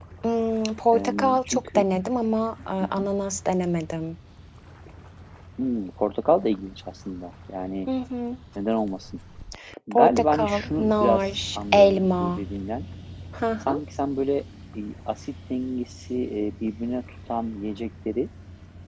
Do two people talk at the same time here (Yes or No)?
Yes